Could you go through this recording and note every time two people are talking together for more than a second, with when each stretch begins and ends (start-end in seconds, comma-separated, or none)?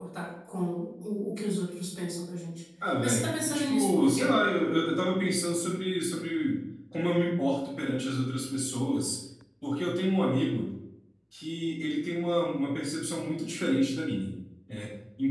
3.0-4.3